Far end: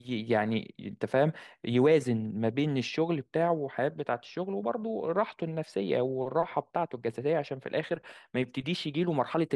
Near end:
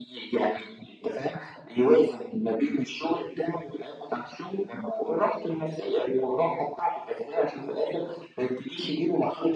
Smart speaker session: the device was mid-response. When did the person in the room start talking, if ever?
none

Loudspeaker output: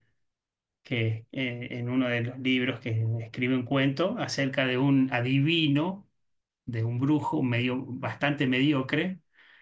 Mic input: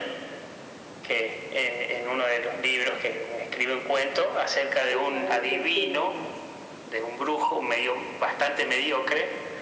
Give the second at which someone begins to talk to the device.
4.9 s

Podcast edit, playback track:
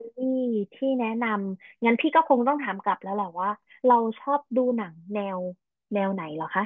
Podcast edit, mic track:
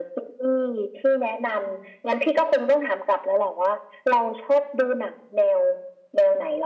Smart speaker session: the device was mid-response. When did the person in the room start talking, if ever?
none

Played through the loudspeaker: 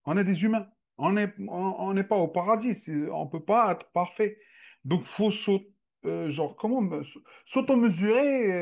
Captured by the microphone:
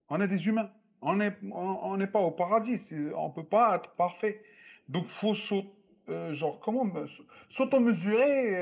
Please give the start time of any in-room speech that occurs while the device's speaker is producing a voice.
none

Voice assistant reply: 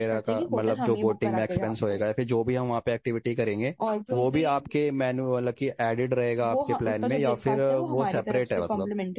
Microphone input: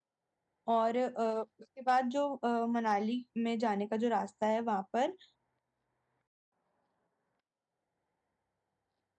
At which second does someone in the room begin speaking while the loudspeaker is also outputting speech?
0.7 s

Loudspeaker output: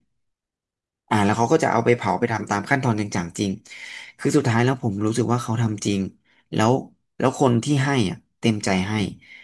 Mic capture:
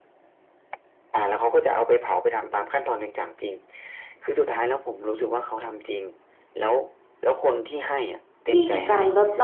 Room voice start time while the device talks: 8.4 s

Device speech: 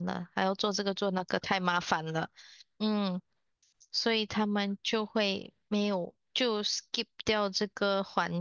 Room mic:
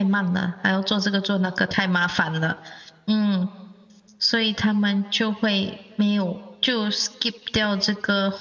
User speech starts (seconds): none

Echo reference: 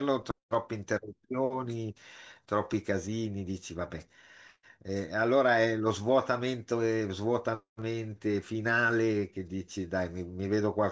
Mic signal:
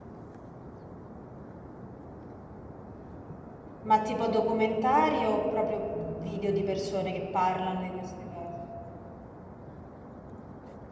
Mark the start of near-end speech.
3.8 s

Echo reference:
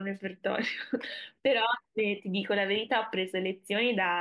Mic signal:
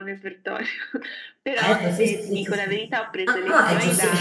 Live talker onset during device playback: 1.6 s

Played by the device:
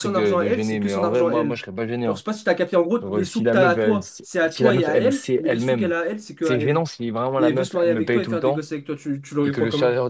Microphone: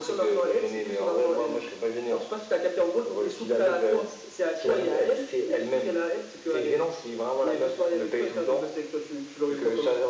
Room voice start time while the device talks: none

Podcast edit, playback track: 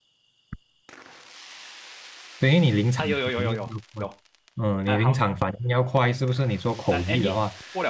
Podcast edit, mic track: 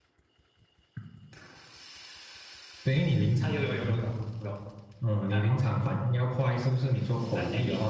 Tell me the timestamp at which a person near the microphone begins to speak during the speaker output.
none

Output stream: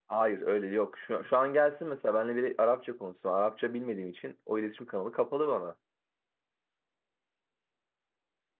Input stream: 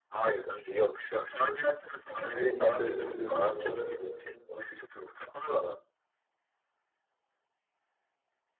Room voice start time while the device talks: 2.3 s

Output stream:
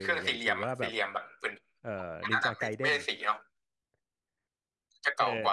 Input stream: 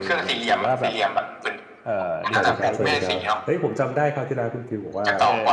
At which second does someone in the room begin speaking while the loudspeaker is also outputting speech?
2.3 s

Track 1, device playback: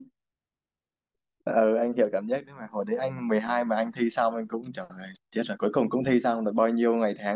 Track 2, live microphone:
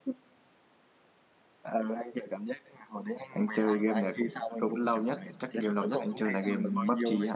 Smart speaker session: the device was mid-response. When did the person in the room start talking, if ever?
3.3 s

